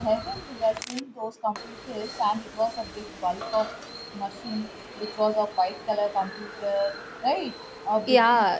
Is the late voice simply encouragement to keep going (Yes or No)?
No